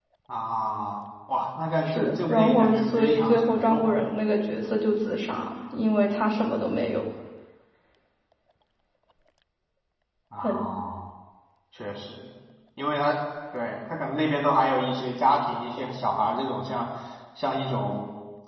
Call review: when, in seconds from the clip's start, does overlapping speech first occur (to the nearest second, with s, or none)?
2 s